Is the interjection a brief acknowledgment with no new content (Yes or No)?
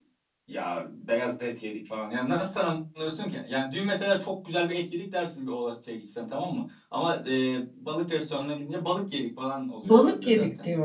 No